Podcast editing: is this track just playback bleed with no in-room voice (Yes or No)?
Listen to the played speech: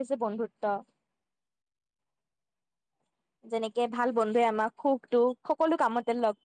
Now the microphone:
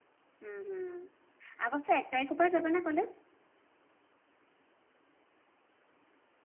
No